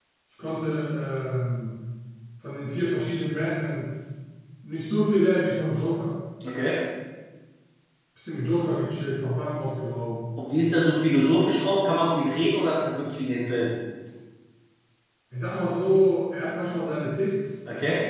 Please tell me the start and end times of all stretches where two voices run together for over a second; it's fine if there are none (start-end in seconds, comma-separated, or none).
none